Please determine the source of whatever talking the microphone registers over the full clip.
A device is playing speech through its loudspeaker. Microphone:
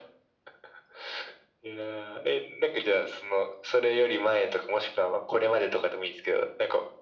echo only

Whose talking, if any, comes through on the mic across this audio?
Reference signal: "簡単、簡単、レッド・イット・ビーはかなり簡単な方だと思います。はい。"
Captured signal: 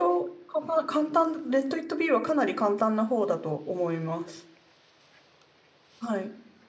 echo only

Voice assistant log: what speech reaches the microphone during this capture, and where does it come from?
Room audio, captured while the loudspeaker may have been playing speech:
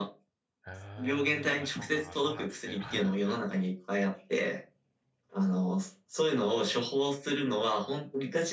both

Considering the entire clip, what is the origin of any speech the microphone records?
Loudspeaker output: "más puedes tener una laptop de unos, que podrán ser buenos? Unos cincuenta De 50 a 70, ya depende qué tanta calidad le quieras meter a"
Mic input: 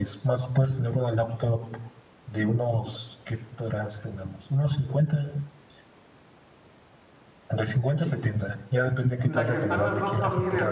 both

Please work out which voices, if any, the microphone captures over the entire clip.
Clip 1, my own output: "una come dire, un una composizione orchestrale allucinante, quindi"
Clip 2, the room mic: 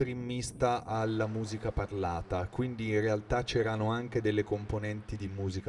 user only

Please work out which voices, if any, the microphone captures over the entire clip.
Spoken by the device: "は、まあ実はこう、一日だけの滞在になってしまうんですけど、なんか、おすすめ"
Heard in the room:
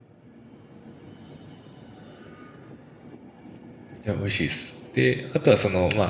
user only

